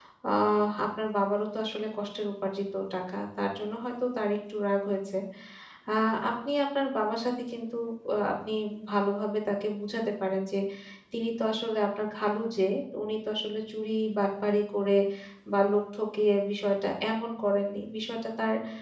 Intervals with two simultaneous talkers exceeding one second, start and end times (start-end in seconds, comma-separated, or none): none